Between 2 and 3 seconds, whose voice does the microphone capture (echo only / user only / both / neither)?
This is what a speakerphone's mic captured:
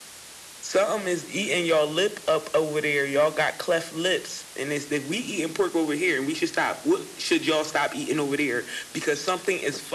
echo only